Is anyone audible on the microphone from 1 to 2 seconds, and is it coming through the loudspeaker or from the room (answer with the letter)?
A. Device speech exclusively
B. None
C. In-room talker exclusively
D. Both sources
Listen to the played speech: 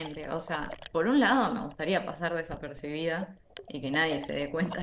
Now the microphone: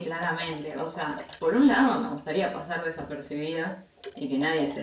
A